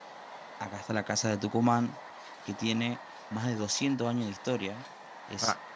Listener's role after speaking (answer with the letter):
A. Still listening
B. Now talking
A